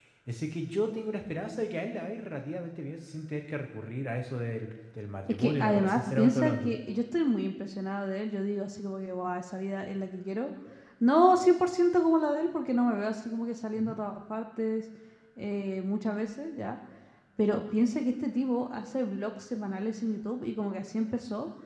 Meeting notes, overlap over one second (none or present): present